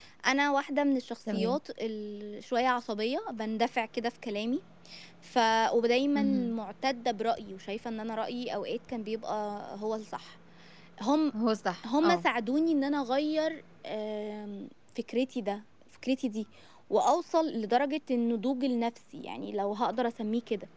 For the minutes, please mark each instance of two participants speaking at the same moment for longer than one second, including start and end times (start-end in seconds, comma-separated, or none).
none